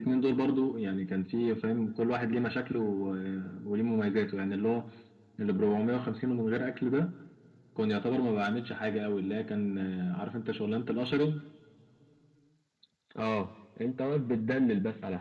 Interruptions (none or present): none